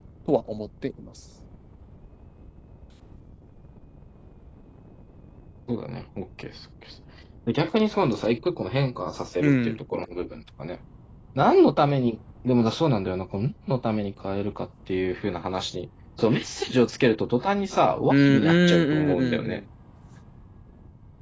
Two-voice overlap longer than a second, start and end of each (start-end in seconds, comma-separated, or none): 18.1-19.6